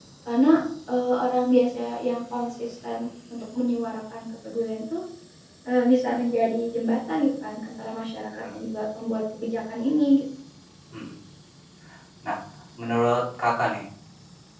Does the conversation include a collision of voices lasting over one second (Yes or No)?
No